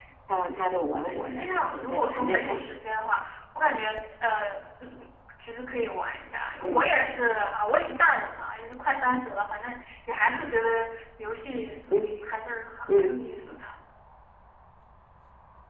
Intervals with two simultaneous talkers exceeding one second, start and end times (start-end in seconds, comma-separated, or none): 1.1-2.8